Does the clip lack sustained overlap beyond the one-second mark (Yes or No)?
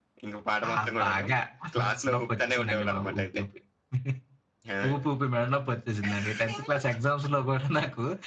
No